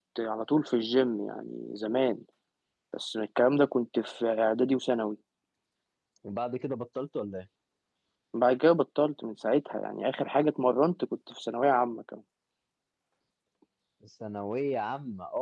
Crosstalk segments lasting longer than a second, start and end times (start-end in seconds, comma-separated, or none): none